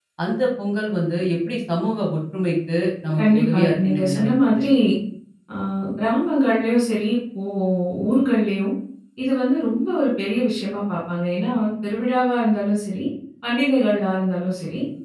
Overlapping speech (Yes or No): Yes